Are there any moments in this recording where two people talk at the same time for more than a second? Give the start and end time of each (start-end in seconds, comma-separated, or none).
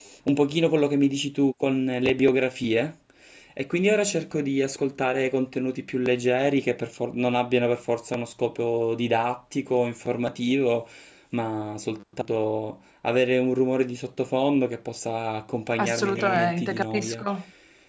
15.8-17.2